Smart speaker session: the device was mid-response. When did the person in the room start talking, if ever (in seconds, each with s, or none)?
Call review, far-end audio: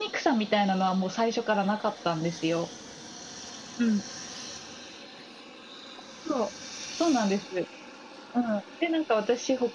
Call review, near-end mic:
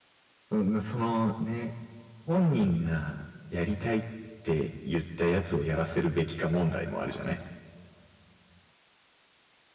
0.5 s